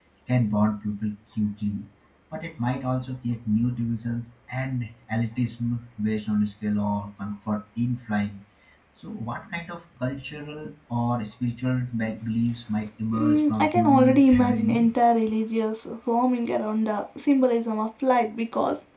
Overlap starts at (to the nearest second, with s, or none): 13 s